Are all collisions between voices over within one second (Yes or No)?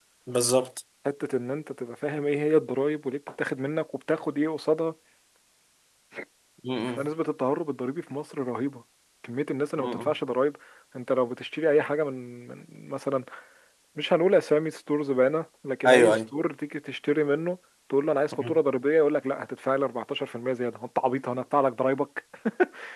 Yes